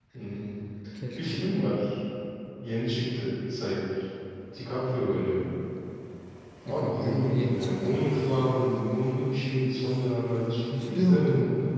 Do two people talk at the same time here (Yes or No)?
Yes